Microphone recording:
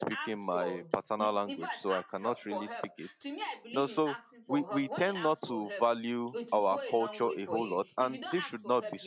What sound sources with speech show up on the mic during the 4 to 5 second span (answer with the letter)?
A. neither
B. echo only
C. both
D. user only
C